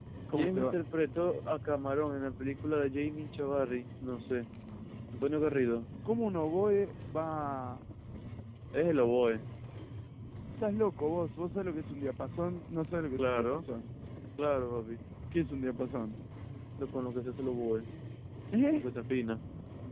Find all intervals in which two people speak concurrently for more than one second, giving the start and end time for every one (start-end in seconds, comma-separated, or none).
none